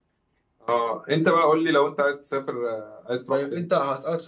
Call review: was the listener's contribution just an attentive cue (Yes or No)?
No